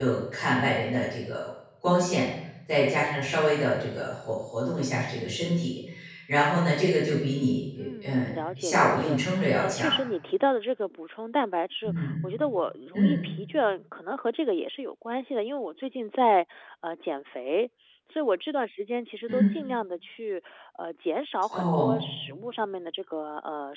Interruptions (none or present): present